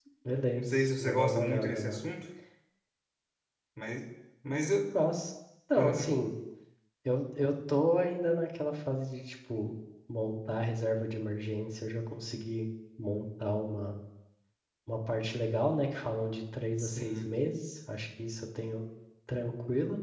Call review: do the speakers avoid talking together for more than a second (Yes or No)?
No